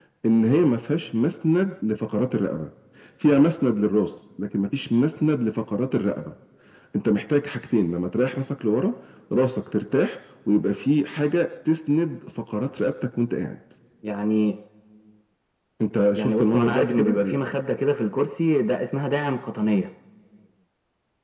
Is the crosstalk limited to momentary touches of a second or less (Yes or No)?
No